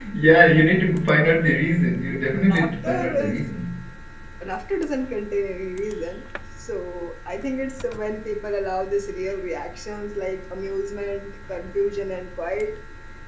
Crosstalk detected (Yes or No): Yes